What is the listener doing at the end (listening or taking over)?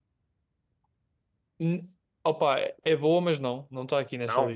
listening